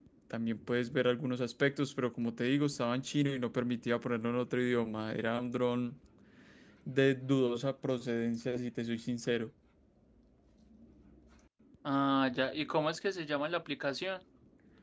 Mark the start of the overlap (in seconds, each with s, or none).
none